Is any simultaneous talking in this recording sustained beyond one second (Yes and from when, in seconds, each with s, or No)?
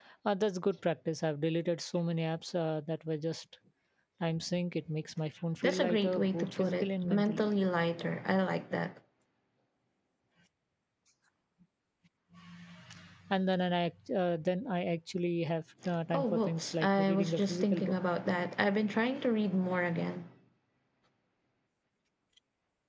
Yes, from 5.6 s